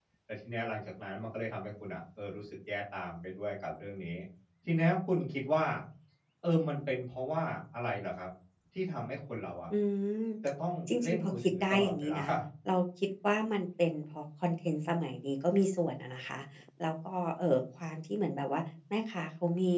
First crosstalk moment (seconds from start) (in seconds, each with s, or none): 11.0 s